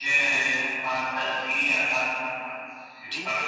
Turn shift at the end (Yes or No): Yes